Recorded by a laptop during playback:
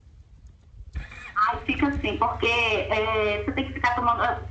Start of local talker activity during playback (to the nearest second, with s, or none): none